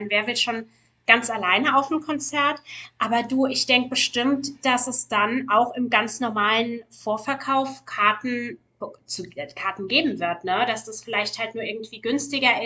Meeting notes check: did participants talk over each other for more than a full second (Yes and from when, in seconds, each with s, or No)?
No